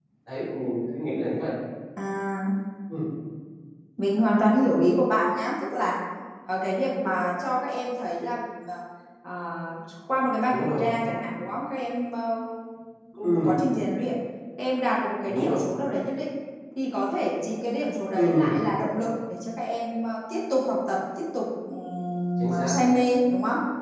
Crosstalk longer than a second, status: none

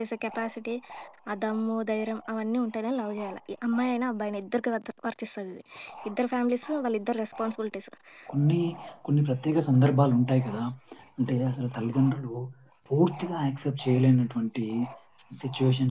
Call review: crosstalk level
none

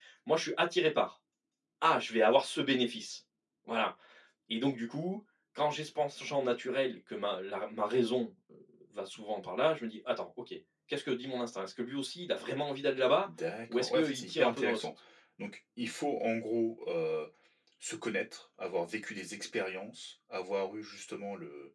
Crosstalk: present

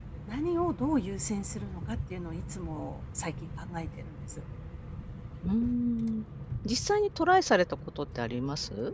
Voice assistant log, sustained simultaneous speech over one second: none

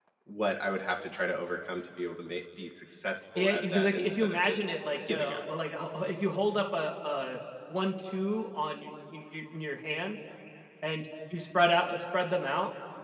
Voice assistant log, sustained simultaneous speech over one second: present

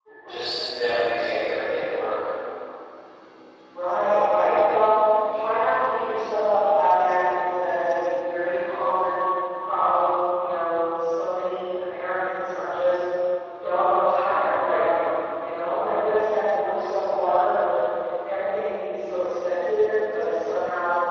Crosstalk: none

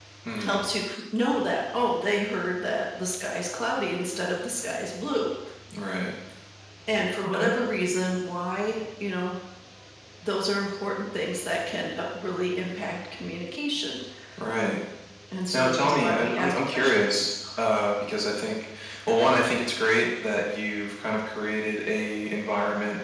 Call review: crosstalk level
present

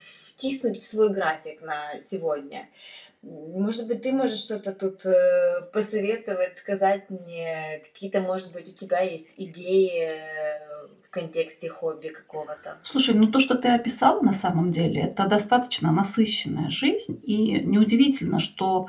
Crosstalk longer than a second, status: none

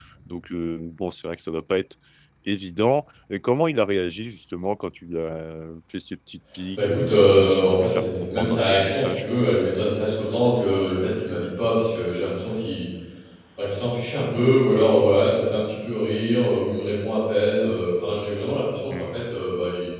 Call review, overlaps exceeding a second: present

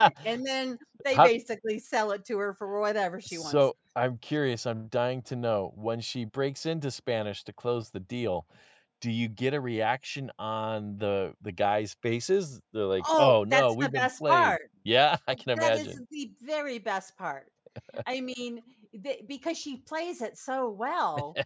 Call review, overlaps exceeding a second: present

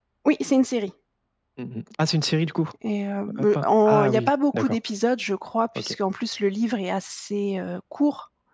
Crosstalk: present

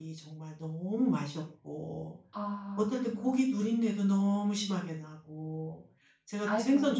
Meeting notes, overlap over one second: none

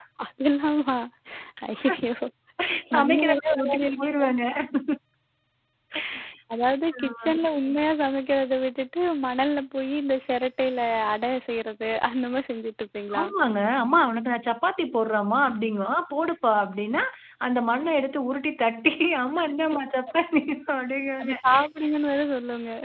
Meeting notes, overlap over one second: present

